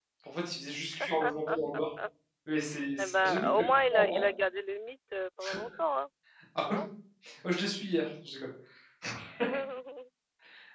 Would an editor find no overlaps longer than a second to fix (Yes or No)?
No